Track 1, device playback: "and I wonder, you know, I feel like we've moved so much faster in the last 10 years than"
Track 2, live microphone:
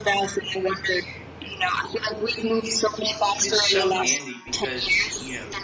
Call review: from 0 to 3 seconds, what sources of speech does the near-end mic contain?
echo only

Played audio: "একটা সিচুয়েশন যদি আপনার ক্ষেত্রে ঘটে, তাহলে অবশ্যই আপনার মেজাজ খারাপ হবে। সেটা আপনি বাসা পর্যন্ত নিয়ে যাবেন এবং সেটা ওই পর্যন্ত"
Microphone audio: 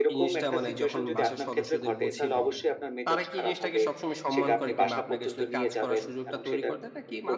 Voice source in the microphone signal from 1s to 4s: both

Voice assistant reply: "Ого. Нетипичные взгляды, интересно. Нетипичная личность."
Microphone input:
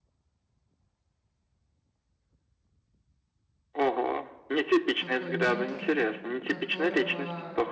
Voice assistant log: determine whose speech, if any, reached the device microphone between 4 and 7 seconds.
both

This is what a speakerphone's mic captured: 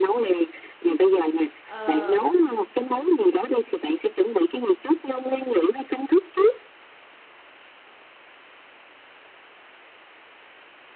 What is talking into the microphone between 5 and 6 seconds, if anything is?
echo only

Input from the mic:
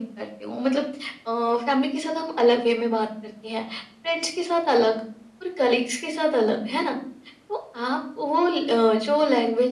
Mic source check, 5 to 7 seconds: echo only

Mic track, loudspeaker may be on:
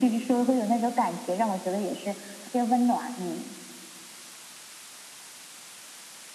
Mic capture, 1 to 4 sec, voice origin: echo only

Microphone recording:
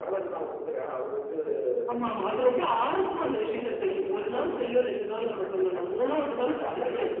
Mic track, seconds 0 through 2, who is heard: echo only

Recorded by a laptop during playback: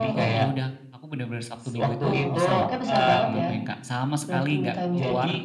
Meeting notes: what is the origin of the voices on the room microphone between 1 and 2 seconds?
both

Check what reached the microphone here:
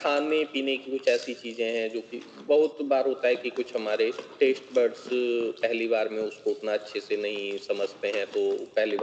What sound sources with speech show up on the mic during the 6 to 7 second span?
echo only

